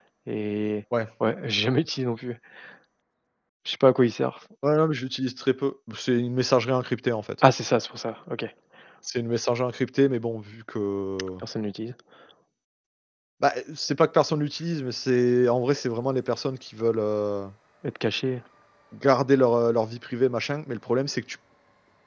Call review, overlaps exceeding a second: none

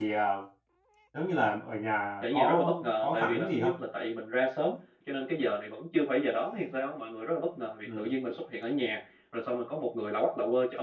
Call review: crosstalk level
present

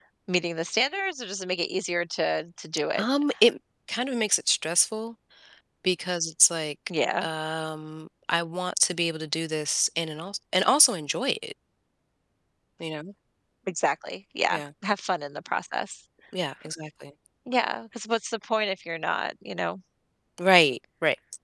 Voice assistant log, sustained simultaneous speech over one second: none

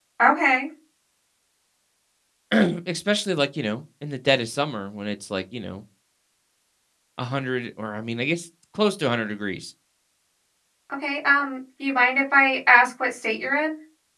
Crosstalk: none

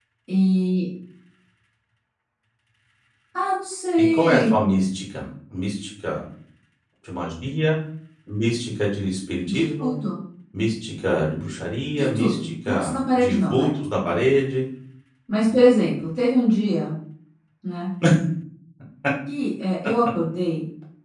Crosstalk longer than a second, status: present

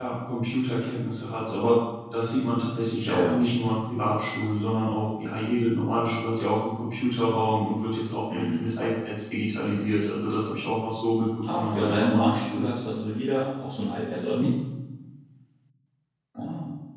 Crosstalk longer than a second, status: present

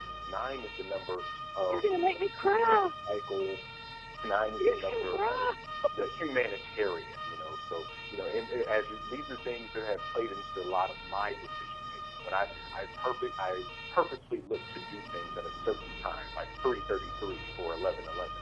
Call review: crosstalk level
present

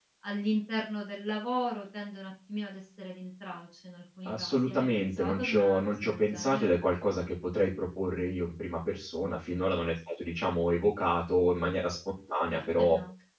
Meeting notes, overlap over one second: present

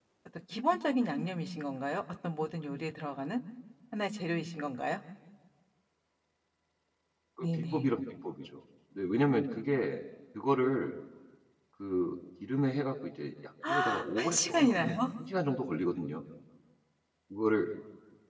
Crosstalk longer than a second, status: present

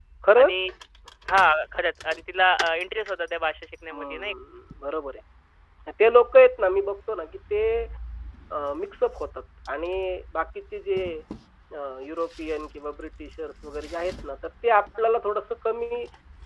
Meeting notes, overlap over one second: none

